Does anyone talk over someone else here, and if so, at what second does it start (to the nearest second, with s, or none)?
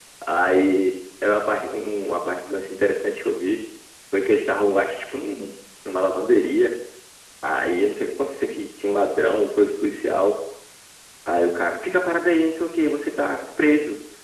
none